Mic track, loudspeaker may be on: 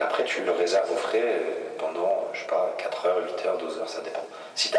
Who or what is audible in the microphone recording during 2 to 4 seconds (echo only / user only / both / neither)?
echo only